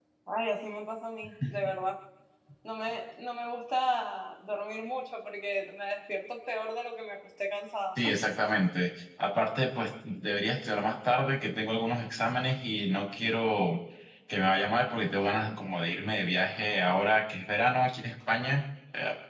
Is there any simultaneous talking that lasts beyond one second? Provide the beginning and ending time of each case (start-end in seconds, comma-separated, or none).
none